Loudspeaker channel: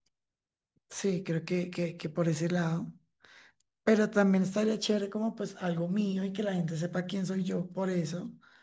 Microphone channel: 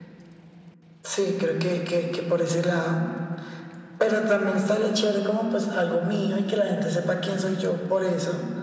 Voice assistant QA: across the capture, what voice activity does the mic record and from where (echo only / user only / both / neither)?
echo only